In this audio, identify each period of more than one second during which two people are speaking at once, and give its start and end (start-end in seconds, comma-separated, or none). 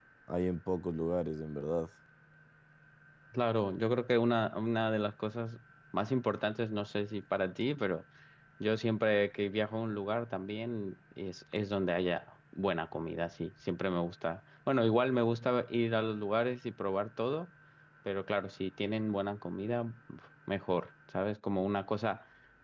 none